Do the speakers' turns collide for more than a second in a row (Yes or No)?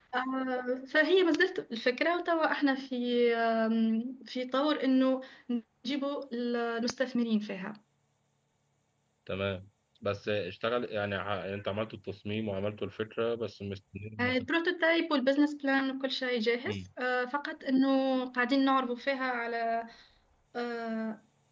No